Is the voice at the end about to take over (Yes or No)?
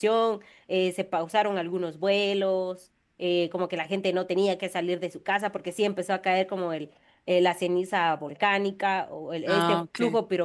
No